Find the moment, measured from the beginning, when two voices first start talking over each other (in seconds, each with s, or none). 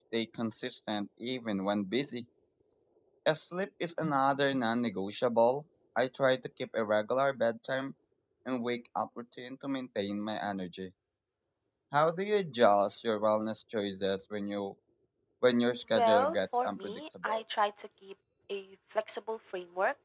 15.9 s